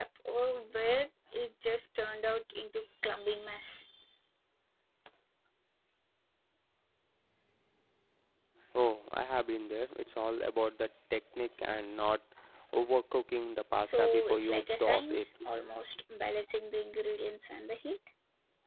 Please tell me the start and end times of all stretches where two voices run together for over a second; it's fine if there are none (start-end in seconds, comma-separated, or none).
13.8-15.3